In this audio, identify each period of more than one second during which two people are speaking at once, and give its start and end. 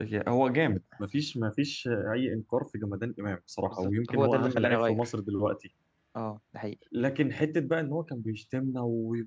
3.7-5.1

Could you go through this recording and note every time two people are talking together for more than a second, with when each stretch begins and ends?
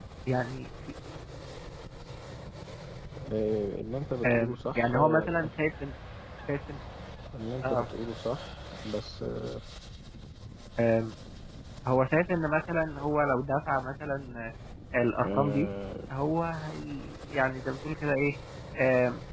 4.2-5.5

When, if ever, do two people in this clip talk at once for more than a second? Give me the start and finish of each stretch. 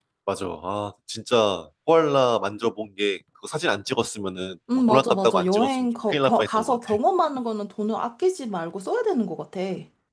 4.9-7.0

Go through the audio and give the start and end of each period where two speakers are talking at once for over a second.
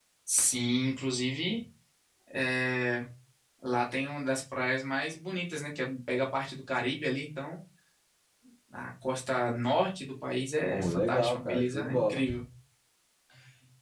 10.7-12.2

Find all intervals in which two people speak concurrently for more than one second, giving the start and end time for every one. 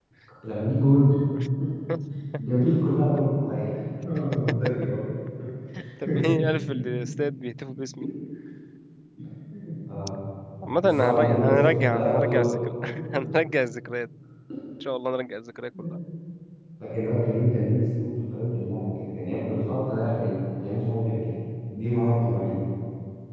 10.8-12.4

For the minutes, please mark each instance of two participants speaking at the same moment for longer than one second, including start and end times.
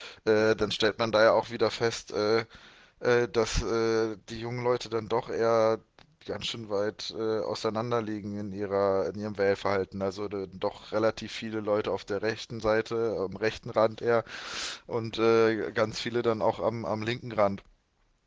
none

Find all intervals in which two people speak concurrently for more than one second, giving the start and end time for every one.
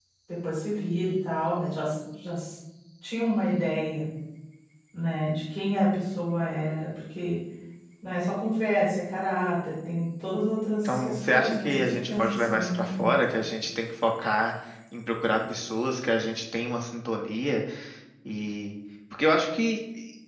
10.8-13.1

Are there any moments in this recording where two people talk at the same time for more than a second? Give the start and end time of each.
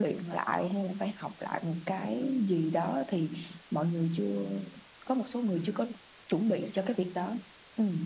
none

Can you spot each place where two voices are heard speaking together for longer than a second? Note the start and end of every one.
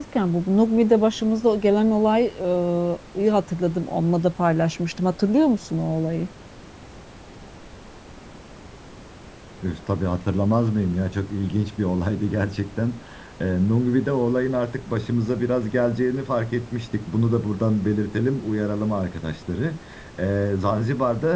none

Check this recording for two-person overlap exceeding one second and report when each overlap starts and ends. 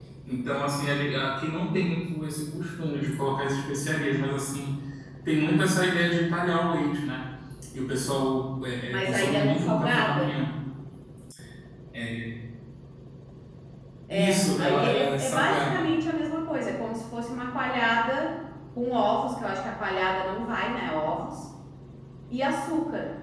8.9-10.3, 14.1-15.9

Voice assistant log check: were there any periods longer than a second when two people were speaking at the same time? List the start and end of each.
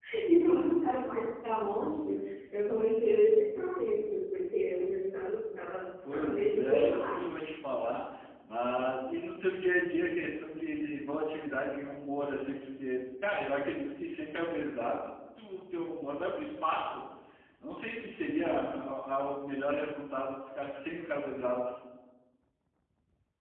6.1-7.3

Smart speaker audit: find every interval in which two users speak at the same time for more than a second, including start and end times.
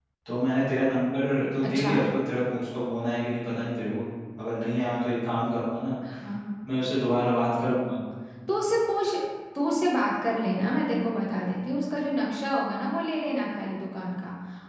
none

